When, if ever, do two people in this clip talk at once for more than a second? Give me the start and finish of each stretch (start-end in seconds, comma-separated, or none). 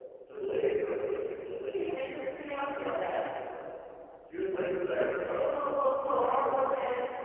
none